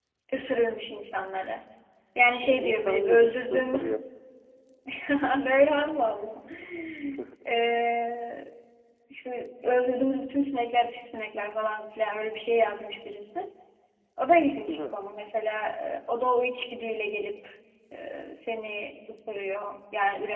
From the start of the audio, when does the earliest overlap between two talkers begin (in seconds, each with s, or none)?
2.4 s